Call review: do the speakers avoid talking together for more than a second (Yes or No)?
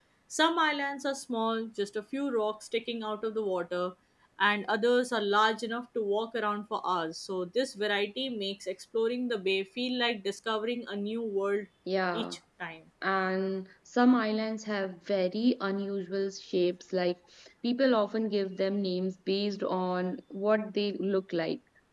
Yes